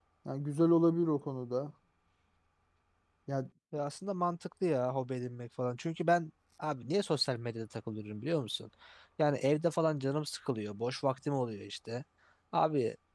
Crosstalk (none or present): none